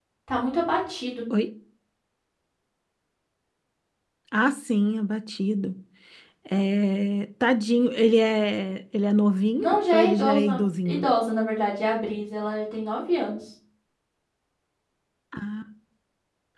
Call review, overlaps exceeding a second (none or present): present